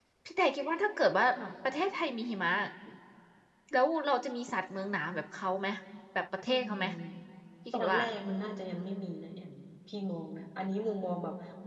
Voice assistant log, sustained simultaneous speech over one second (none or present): none